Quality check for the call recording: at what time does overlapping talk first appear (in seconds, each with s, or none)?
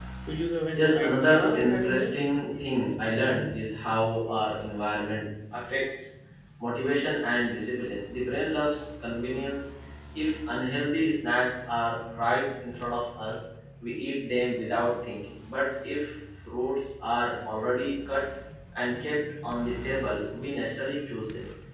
0.7 s